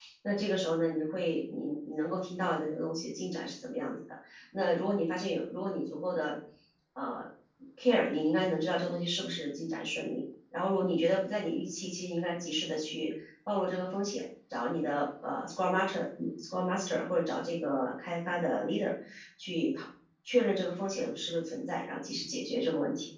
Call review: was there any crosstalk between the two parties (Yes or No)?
No